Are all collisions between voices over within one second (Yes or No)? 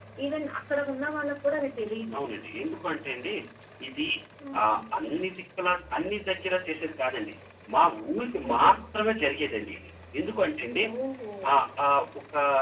Yes